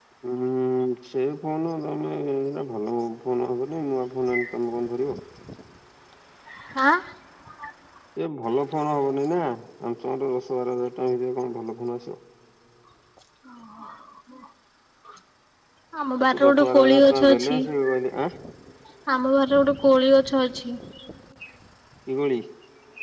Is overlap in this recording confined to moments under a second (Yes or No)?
No